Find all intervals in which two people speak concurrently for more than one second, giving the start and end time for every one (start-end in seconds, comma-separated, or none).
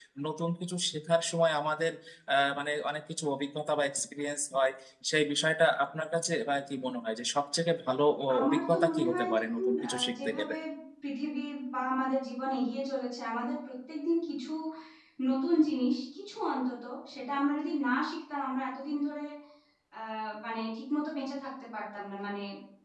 8.4-10.5